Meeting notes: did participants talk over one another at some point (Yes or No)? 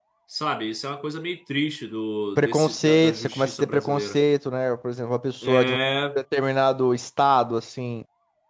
Yes